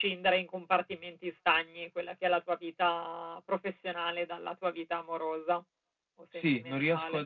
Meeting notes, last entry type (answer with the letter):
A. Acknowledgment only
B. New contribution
B